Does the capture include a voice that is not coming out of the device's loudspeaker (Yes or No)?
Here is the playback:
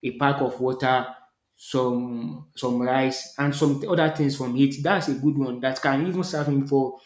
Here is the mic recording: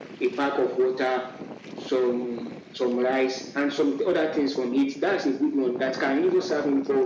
No